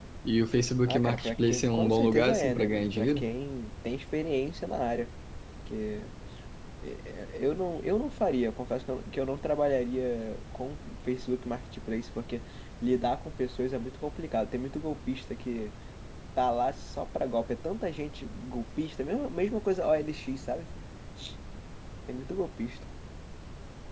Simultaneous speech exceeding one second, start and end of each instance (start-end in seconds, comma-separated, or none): 0.8-3.3